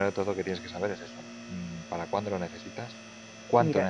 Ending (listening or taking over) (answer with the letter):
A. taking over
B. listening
A